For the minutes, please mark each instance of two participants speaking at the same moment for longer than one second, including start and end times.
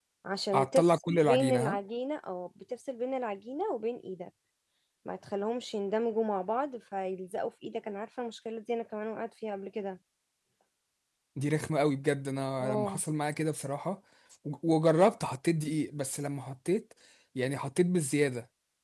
0.5-1.8

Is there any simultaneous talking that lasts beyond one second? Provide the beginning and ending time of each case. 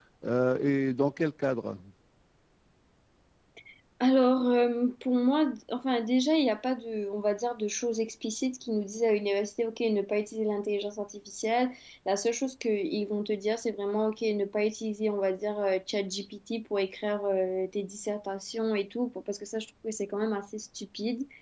none

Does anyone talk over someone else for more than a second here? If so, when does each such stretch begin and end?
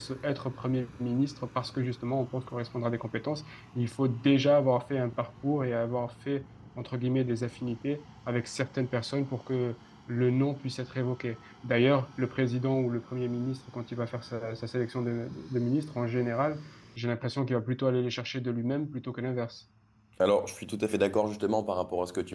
none

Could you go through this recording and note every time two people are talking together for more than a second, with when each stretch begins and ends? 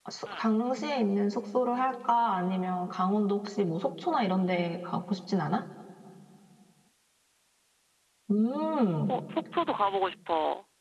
none

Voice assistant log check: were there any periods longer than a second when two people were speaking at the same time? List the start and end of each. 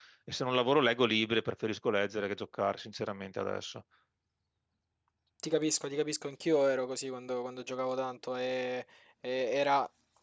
none

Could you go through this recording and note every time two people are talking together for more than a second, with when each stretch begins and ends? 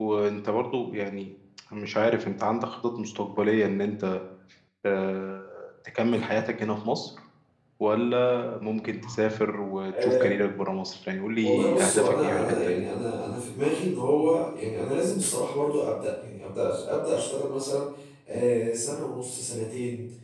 11.4-12.8

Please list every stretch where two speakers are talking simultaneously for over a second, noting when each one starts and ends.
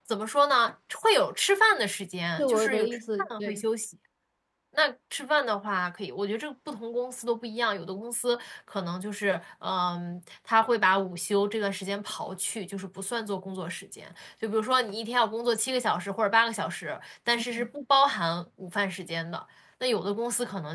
2.4-3.6

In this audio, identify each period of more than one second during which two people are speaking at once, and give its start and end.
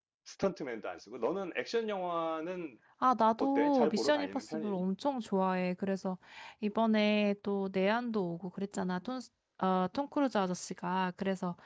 3.4-4.8

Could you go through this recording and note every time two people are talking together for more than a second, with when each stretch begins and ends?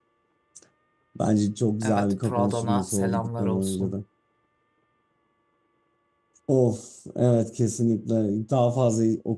1.8-3.9

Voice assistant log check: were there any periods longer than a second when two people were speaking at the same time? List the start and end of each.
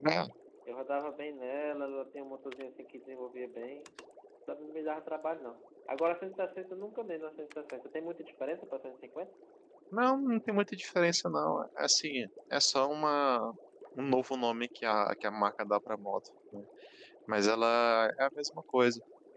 none

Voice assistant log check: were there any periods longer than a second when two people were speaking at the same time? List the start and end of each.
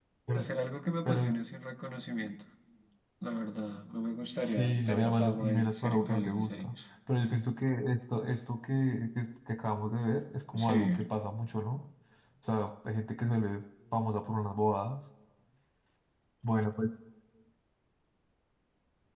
4.4-6.7

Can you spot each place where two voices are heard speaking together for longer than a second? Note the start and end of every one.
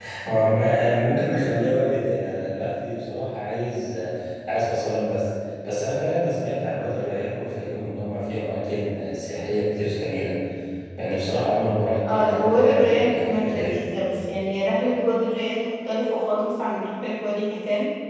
12.1-13.9

